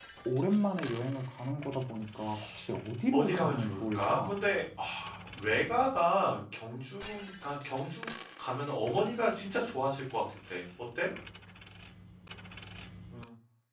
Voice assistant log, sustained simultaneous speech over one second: present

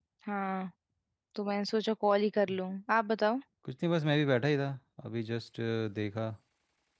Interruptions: none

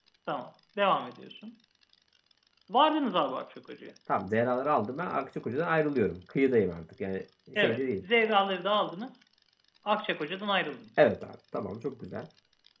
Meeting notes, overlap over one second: none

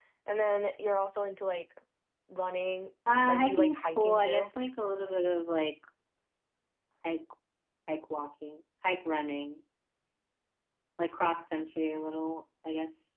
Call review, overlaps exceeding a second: present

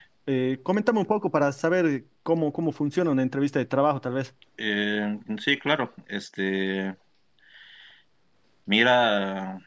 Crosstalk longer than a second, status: none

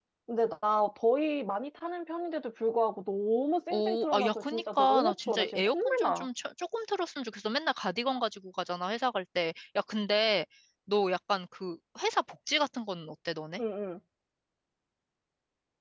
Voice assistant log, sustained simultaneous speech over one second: present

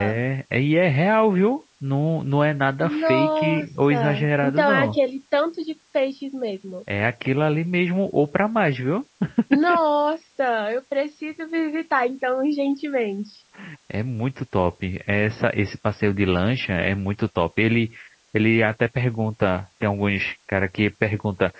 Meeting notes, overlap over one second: present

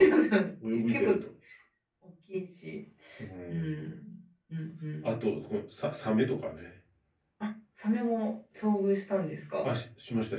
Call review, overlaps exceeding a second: none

